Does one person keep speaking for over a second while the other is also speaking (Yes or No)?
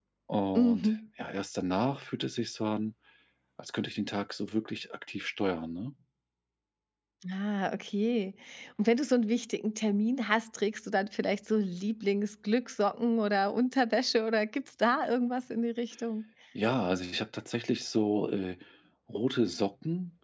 No